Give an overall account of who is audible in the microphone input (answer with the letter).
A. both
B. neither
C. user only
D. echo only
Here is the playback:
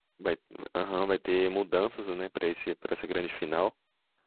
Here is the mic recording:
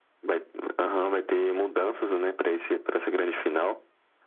D